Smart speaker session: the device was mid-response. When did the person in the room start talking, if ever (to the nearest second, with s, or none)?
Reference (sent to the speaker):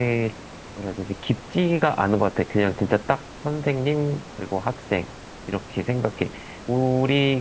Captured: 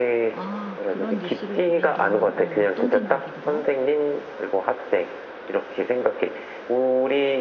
0 s